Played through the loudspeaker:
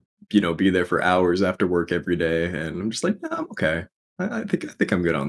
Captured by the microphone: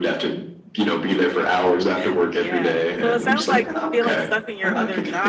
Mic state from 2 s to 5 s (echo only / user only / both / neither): both